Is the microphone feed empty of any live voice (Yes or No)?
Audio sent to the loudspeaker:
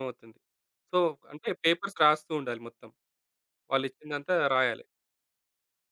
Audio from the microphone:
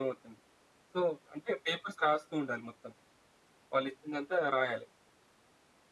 Yes